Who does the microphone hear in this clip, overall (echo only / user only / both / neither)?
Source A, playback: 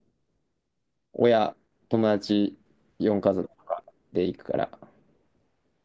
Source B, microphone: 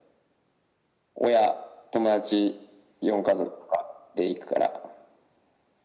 echo only